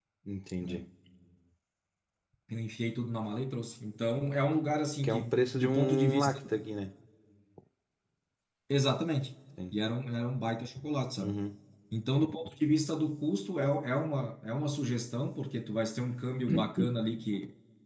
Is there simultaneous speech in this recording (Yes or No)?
Yes